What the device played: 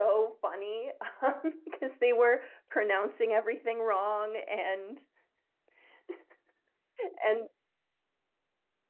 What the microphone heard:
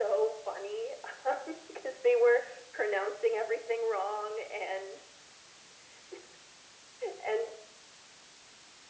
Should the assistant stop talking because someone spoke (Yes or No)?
No